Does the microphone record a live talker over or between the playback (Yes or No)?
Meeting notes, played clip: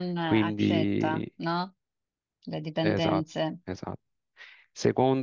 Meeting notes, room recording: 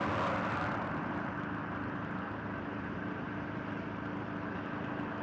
No